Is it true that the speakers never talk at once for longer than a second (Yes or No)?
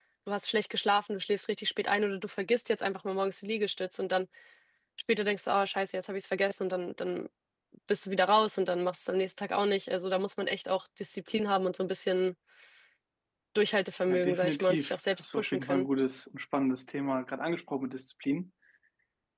No